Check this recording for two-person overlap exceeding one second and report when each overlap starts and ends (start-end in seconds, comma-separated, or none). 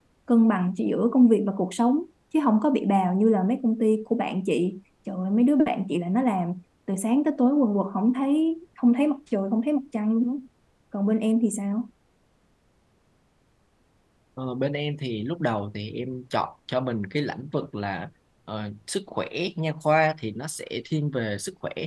none